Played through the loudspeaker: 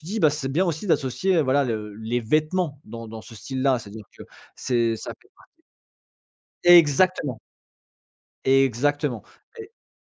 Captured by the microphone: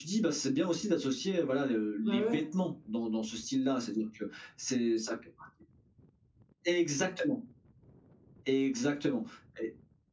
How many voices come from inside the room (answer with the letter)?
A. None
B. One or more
B